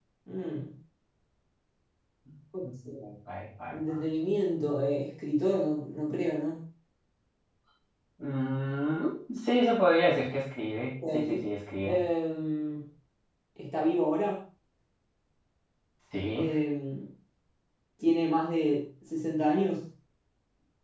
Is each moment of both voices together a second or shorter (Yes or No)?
Yes